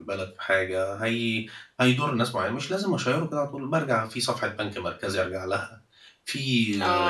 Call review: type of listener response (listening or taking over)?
taking over